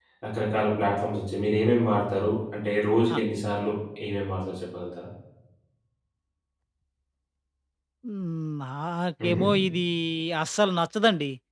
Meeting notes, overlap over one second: none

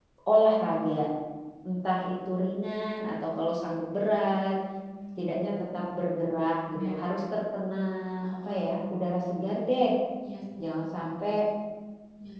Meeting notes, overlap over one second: none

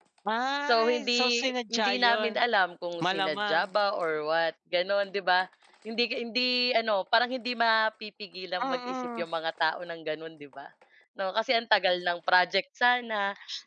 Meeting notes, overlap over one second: present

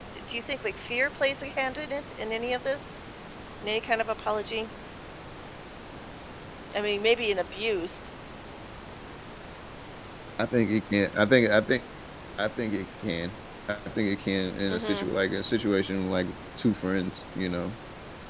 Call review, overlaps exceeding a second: none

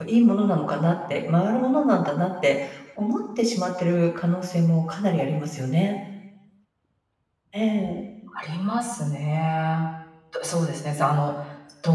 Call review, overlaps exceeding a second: none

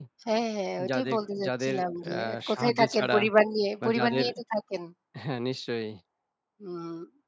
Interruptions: present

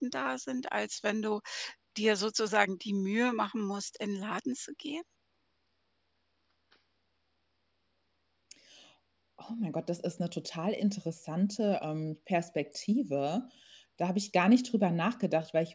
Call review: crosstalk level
none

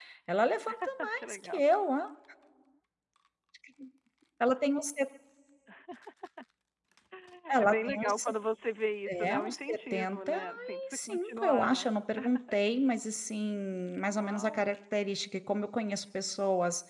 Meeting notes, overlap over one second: present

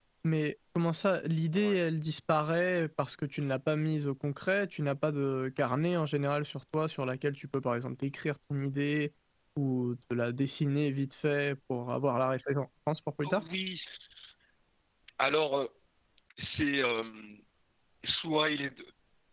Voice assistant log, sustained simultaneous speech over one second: none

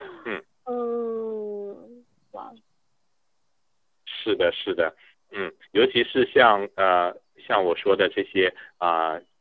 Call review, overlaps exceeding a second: none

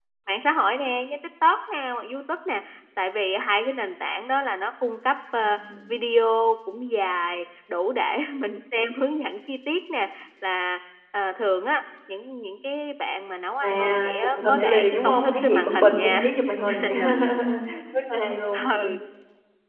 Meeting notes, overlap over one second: present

